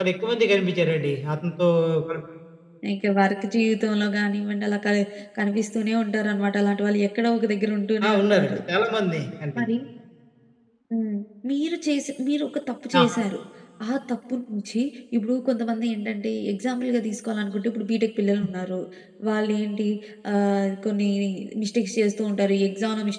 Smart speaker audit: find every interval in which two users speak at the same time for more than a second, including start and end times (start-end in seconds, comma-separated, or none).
none